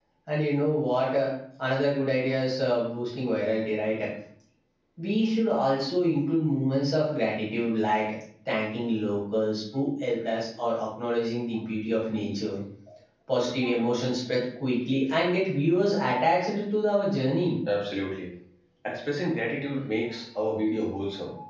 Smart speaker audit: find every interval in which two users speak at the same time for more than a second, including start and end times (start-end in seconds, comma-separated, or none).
none